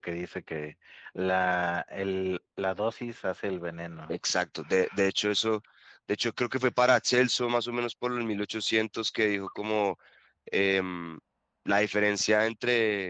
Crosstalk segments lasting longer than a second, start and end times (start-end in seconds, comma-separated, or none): none